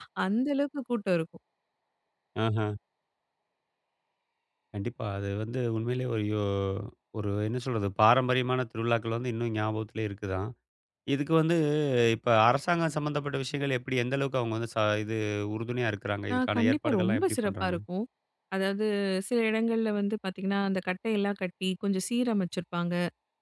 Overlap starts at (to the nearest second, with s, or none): 16 s